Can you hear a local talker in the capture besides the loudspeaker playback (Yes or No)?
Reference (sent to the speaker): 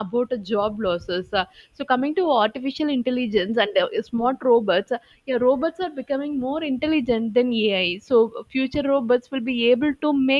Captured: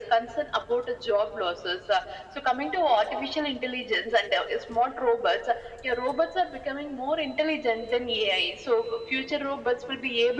No